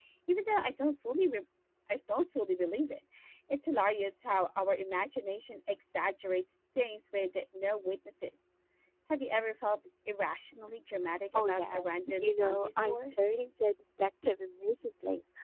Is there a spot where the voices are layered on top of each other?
Yes, from 11.3 s

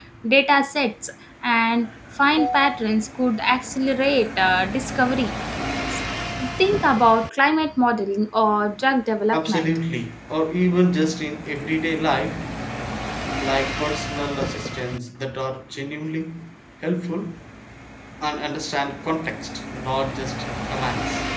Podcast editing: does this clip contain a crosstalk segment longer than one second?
No

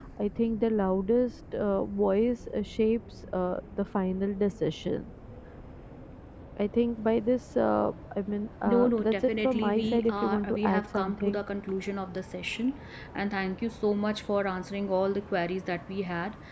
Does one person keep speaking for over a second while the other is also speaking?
Yes, from 8.6 s

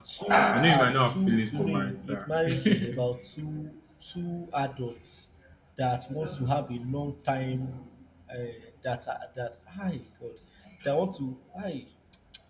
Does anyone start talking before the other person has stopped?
Yes, from 0.5 s

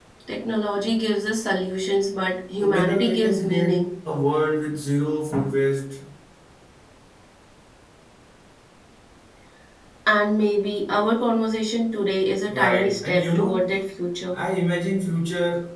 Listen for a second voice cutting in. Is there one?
Yes, from 2.6 s

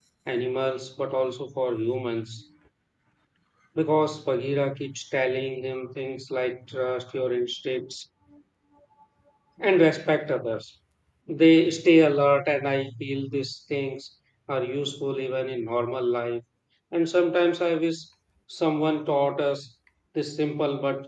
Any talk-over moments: No

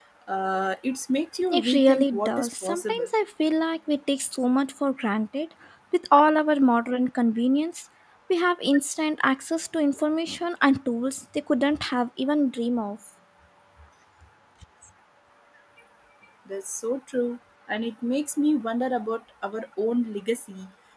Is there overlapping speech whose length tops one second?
Yes, from 1.5 s

